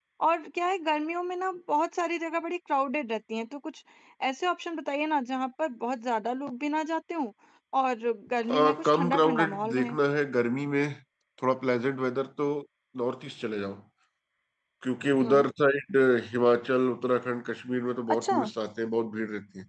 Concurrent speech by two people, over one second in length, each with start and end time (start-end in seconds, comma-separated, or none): 8.5-10.0